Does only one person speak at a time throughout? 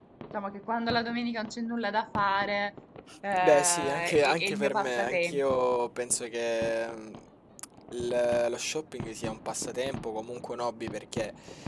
No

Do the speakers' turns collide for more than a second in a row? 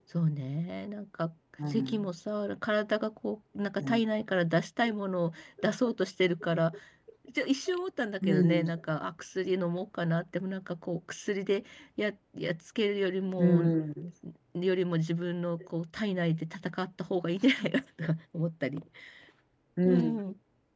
No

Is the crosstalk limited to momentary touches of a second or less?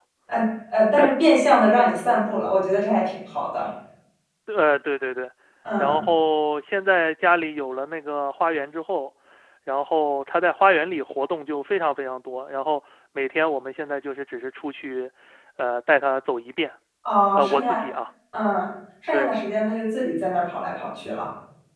Yes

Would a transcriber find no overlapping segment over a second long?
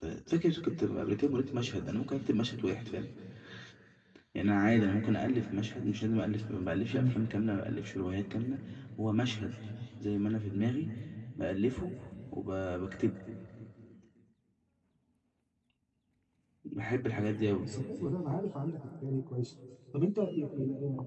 Yes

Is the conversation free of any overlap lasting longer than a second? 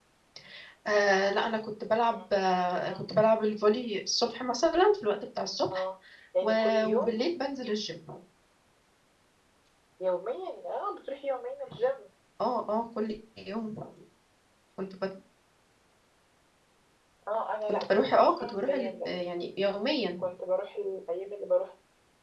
No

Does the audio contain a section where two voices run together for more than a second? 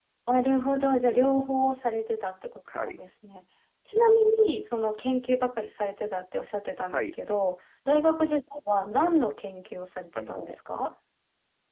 No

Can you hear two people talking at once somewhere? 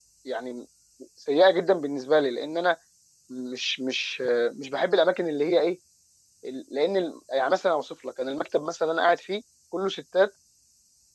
No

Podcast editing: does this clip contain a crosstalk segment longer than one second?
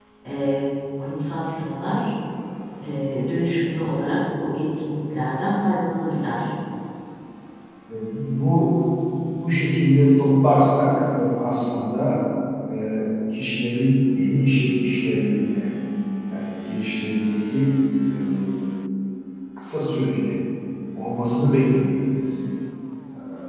No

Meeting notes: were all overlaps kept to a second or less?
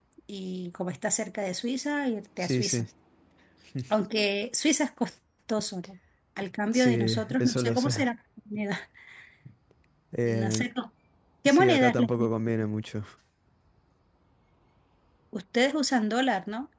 No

